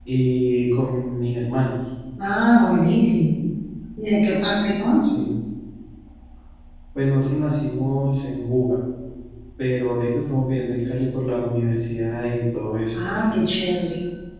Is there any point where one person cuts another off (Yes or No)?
No